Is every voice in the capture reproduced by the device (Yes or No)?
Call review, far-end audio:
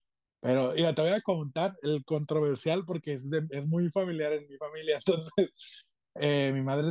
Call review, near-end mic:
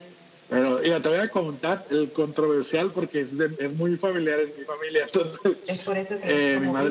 No